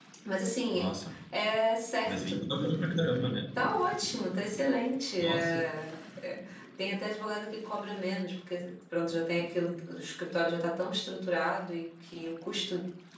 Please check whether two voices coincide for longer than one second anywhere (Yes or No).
No